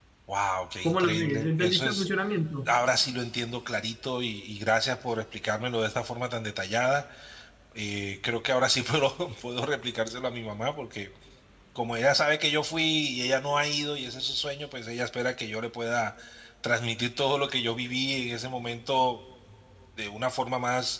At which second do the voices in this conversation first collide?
0.8 s

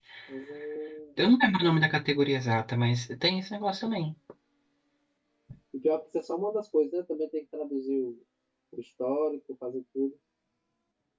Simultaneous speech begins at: none

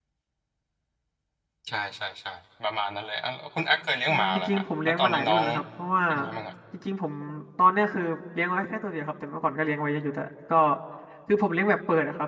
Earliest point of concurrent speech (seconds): 4.1 s

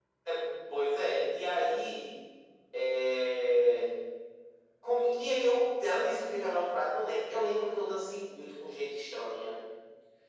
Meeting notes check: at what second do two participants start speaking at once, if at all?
none

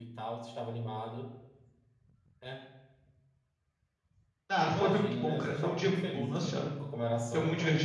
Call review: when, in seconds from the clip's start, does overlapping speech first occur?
4.6 s

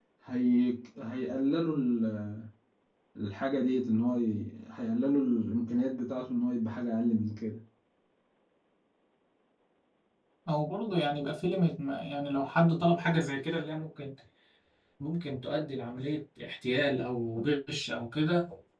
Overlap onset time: none

